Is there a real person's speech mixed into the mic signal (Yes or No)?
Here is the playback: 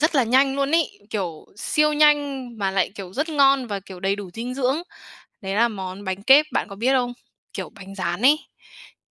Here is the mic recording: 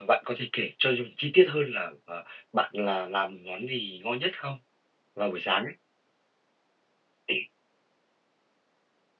Yes